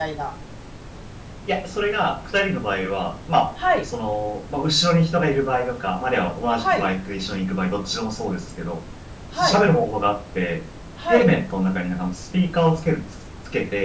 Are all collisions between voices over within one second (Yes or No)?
Yes